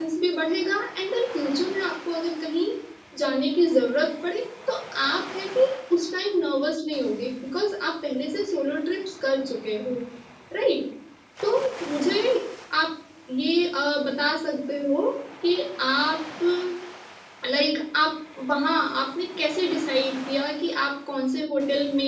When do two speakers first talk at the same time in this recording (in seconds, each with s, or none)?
none